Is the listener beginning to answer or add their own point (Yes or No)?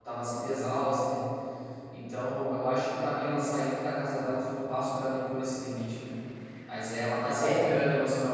No